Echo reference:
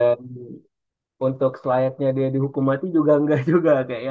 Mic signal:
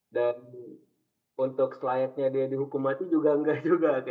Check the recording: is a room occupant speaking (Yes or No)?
No